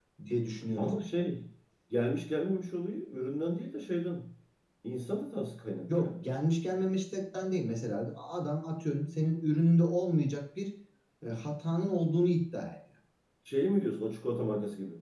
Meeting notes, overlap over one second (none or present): none